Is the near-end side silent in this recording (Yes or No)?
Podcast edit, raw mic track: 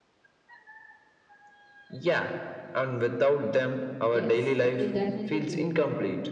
No